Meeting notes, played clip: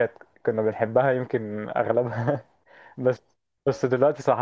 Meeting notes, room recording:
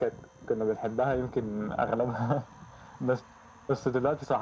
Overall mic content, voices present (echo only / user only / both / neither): echo only